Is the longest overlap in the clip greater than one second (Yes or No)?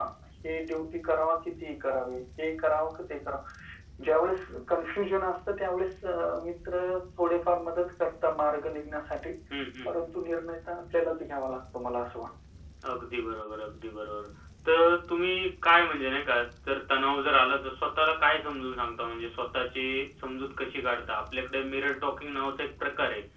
No